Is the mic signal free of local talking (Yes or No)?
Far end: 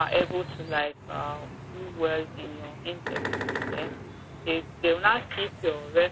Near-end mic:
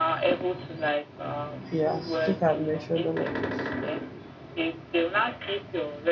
No